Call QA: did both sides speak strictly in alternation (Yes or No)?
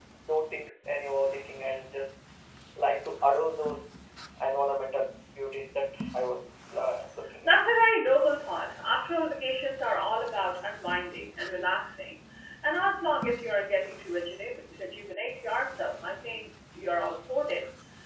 Yes